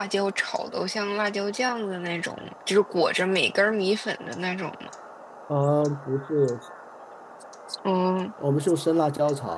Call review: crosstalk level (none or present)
none